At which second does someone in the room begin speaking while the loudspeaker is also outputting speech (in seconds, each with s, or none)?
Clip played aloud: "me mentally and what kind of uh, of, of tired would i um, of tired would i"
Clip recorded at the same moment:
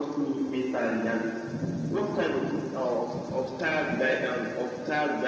none